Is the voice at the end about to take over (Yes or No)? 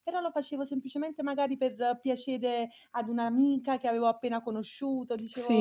Yes